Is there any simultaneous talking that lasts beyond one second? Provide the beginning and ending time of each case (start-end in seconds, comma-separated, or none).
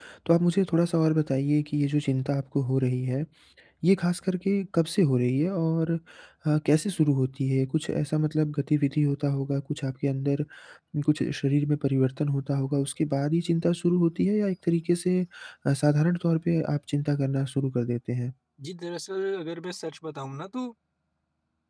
none